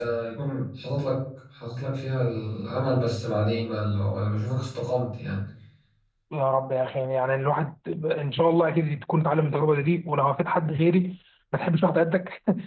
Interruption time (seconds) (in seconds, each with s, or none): none